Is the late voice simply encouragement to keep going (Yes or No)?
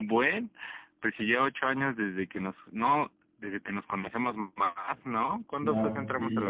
No